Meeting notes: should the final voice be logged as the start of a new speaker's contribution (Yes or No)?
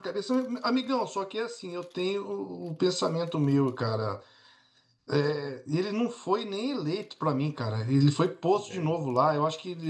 No